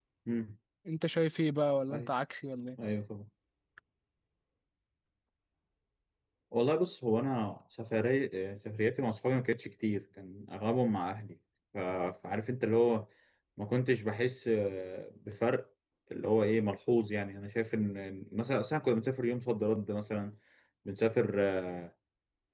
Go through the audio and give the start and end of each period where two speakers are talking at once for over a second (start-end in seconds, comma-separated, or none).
none